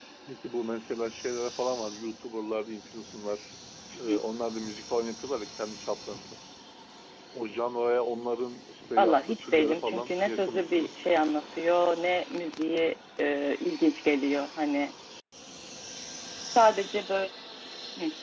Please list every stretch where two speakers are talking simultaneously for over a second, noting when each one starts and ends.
9.0-11.0

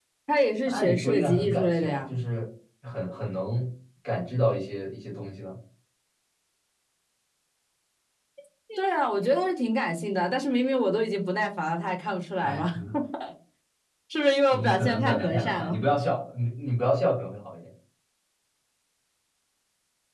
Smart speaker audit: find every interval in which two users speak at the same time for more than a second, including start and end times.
0.7-2.2, 14.5-15.8

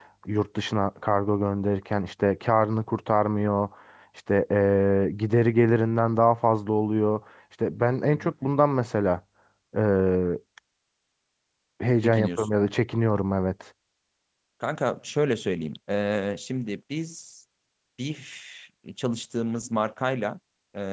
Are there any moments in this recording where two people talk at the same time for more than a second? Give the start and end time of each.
none

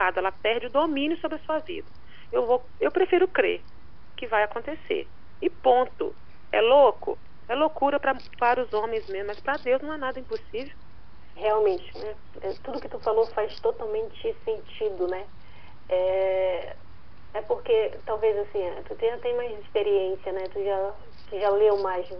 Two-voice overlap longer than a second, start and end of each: none

